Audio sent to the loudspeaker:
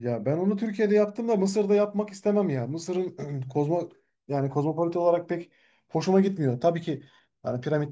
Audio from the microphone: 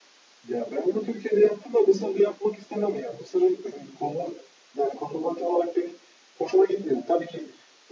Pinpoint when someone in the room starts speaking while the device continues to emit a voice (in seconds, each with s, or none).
none